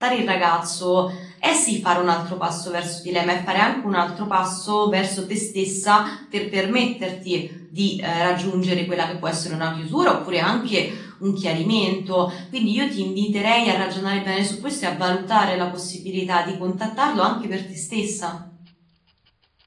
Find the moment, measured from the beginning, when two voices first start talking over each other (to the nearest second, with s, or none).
none